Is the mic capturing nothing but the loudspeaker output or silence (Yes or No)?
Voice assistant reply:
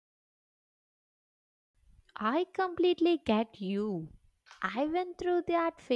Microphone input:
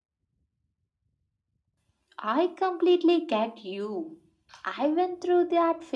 Yes